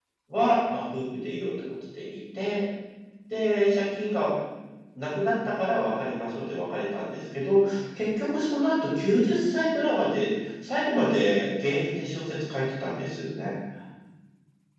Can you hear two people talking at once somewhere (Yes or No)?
No